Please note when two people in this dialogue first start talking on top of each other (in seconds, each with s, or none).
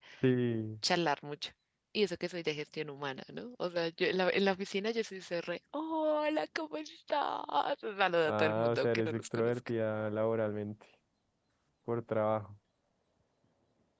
8.2 s